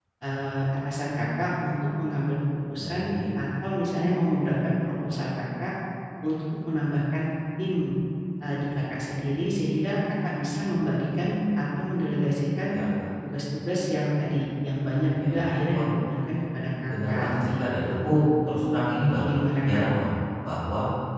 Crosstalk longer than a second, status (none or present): present